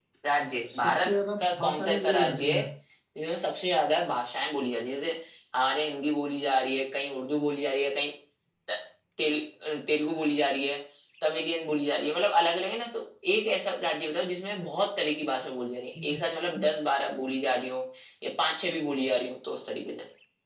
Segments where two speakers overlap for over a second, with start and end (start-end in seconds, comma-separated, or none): 0.7-2.6